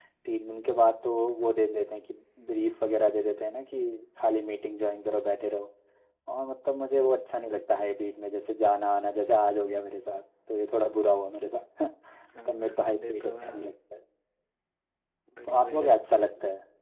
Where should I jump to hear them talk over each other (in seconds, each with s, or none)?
12.4 s